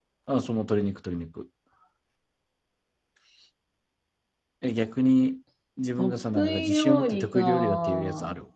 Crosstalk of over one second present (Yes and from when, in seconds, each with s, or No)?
Yes, from 6.0 s